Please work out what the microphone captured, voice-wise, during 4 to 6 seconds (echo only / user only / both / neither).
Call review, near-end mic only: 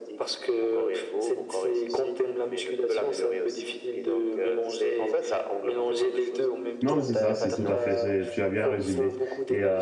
echo only